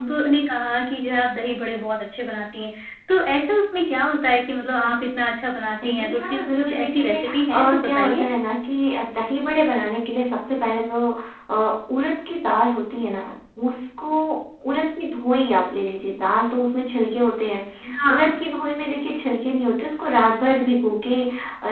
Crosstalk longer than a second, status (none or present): present